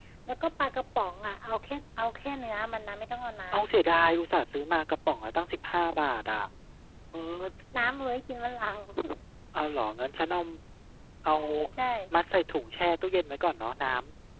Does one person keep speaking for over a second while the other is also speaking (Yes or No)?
No